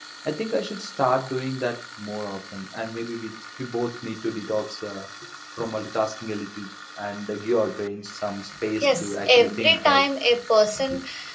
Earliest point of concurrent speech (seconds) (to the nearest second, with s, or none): 9 s